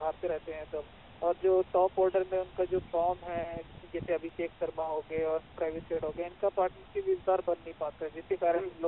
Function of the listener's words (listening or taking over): taking over